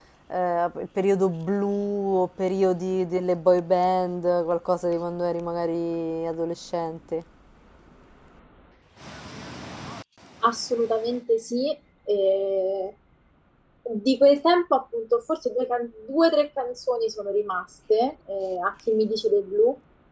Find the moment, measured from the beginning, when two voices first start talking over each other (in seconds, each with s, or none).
none